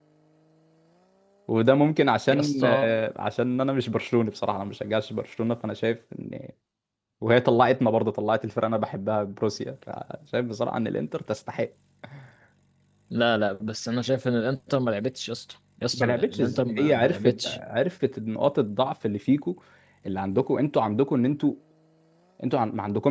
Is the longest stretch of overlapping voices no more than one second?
No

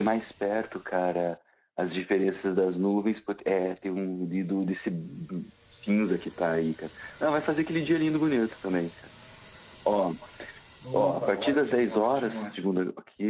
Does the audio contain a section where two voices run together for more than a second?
Yes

